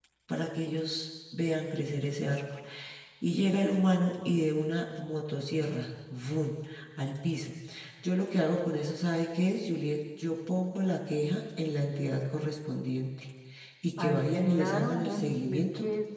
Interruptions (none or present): present